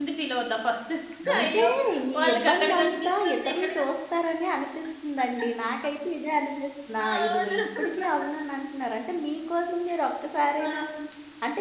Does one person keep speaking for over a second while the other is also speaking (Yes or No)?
Yes